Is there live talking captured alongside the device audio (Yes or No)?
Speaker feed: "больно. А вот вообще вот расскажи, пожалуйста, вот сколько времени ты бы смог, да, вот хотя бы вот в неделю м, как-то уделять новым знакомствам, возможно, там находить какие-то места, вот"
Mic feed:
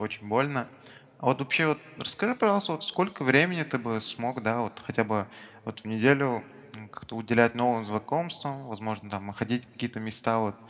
No